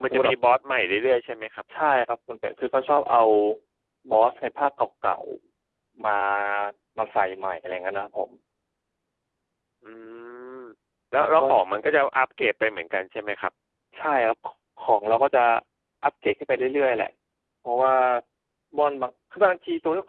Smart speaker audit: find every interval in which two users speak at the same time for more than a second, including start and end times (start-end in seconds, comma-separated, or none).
none